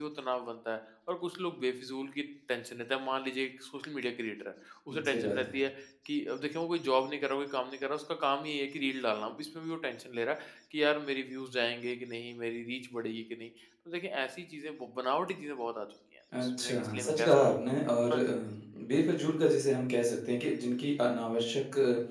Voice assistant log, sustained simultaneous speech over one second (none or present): present